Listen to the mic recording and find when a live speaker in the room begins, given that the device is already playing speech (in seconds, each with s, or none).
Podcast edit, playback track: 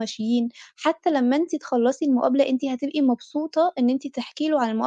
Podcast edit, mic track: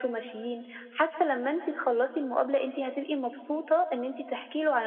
none